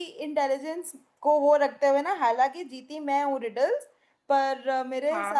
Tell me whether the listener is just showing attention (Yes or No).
Yes